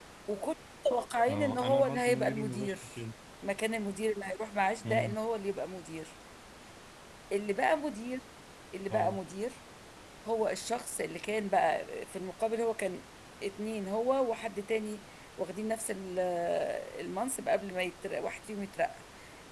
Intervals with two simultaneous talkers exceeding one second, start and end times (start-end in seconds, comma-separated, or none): 1.3-2.8